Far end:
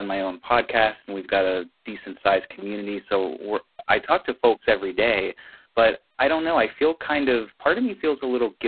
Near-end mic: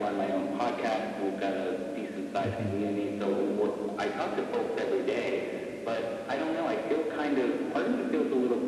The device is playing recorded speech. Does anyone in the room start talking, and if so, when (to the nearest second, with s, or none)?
2 s